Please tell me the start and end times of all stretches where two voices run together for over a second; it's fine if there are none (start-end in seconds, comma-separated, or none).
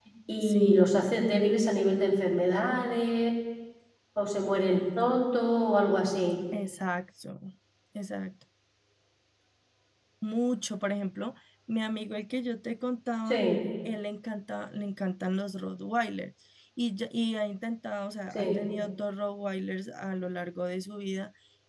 none